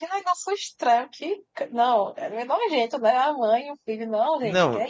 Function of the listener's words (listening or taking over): taking over